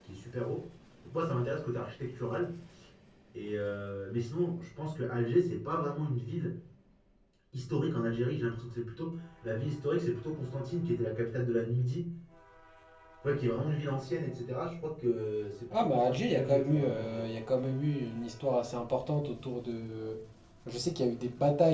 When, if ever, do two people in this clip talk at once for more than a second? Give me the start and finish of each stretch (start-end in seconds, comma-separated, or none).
15.7-17.3